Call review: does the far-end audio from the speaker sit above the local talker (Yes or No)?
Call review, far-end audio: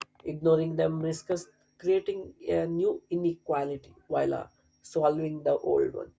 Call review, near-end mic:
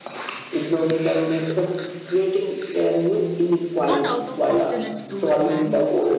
Yes